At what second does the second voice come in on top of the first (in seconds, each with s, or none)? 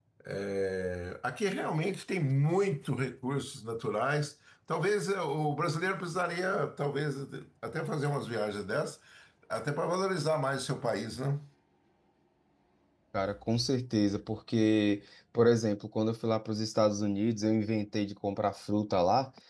none